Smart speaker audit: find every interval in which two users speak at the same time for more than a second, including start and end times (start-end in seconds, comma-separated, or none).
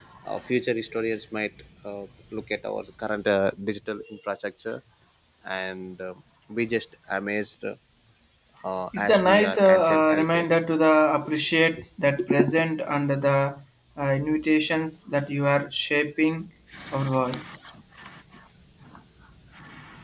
9.0-10.7